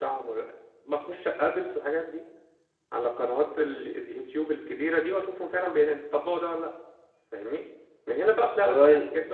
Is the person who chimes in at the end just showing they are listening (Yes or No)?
Yes